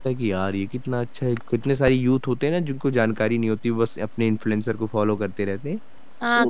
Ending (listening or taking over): taking over